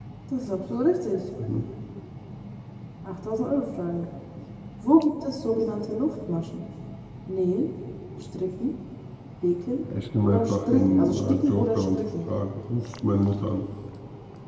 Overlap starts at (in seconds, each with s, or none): 10.2 s